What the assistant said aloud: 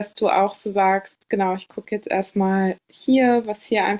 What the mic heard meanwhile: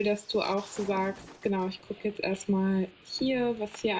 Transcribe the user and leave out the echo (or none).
none